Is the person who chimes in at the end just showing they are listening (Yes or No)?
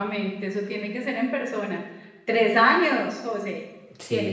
Yes